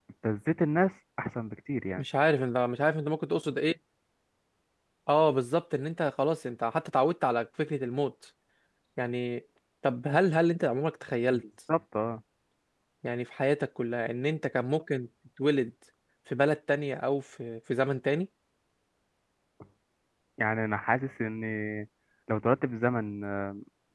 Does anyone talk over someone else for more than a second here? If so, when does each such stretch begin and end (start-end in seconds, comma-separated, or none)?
none